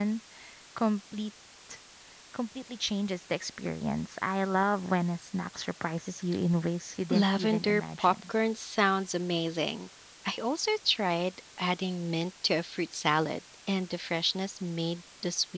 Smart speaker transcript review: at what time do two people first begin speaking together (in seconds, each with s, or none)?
7.1 s